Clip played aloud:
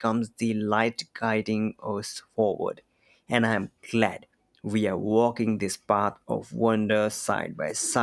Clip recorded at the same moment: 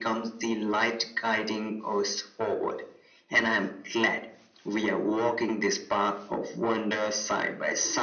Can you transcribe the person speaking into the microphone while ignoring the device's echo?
none

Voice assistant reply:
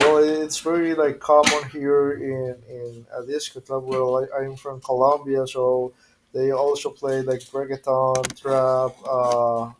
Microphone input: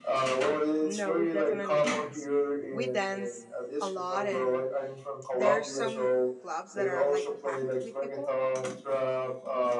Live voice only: No, we definitely dance. We dance a lot, and there are some clubs that are like packed with people,

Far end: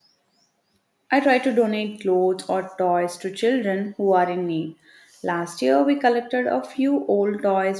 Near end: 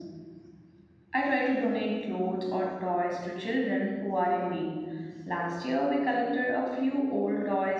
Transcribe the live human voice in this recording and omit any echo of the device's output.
none

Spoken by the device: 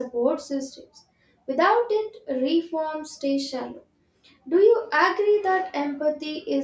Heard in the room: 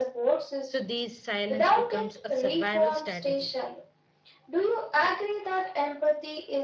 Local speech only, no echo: So, these silence becomes a survival strategy

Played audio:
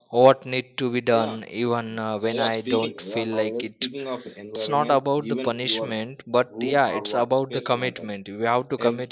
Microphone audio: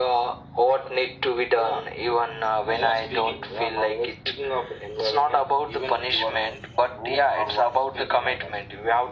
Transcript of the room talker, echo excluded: none

